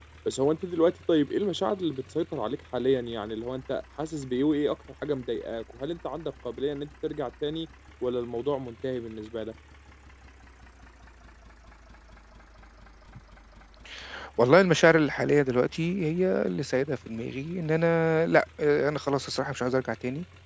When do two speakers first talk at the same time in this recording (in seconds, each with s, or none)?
none